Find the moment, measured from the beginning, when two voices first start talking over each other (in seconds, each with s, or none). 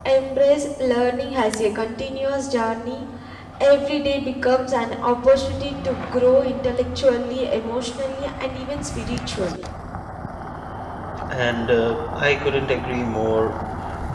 none